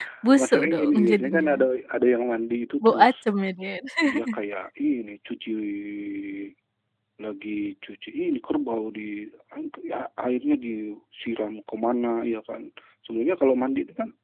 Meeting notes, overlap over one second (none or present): present